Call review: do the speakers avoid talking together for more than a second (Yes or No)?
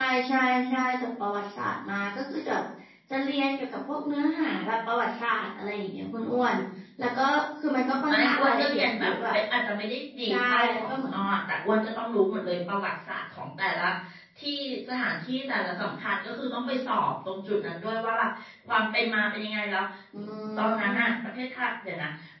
No